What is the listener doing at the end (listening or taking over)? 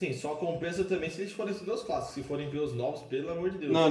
taking over